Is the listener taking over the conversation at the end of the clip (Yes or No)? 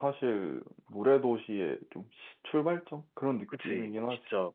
Yes